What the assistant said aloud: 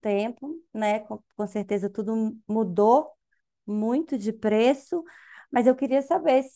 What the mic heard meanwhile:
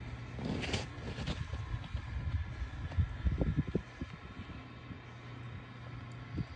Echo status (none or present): none